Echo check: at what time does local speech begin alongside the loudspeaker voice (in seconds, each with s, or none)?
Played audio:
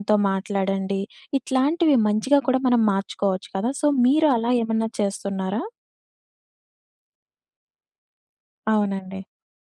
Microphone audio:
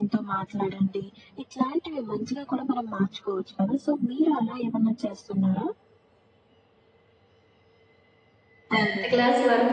8.7 s